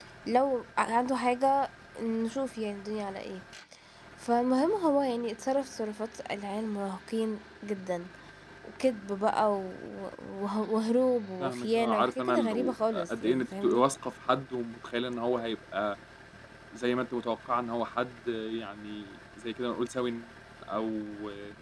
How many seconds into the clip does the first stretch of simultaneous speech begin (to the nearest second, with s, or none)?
11 s